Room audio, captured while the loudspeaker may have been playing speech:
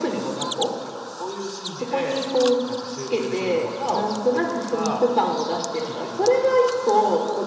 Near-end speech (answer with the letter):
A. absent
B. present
A